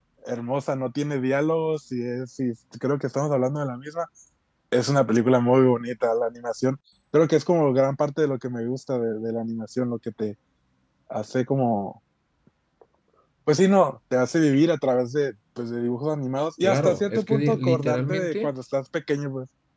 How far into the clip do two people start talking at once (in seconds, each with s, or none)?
16.6 s